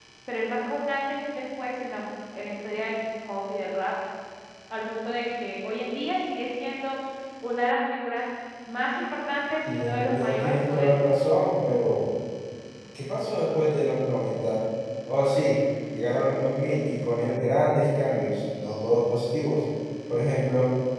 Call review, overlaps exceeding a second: present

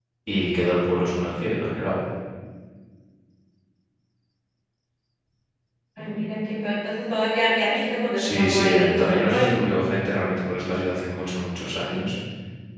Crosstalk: present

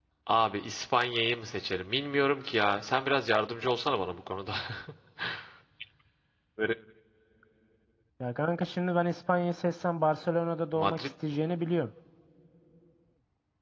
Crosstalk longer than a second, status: none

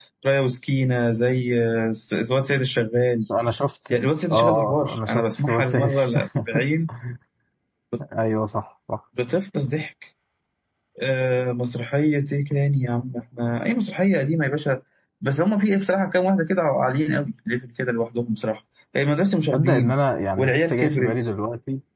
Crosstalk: present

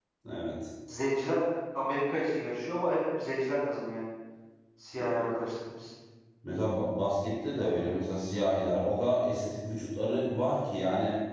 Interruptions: none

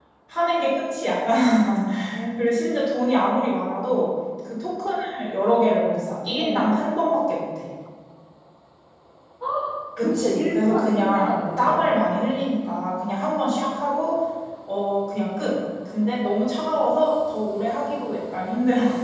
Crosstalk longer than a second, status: present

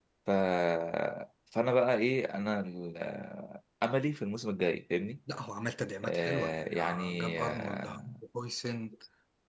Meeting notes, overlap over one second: present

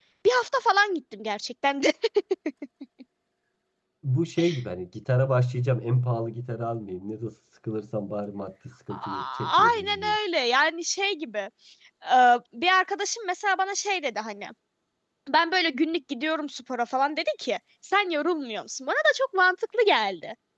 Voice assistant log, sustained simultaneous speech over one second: present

